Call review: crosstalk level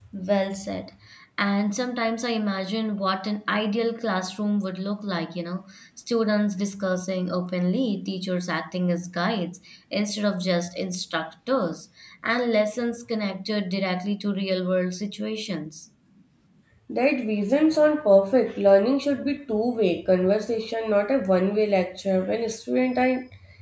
none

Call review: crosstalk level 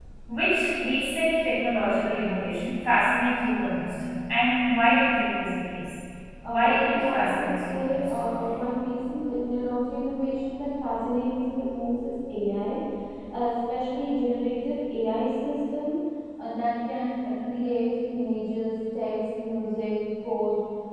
present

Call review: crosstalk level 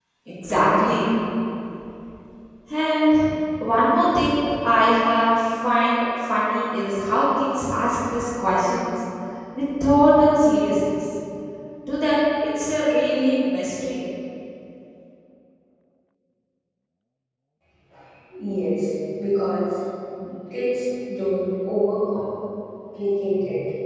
none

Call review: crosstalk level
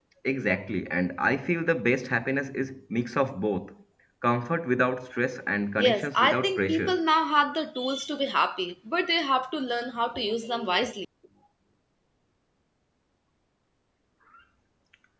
present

